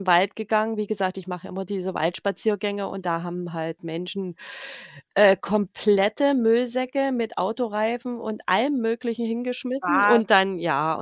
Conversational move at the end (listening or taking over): listening